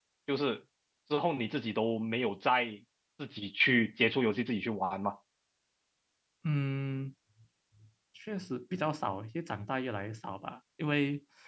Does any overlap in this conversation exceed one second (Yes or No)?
No